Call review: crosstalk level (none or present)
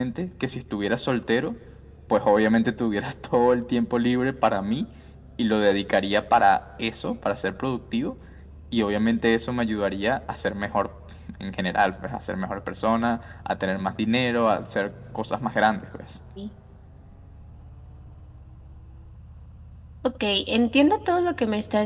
none